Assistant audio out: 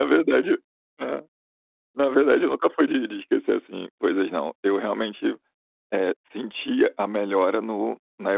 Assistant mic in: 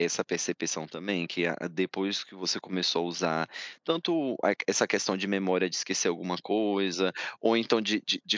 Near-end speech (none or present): present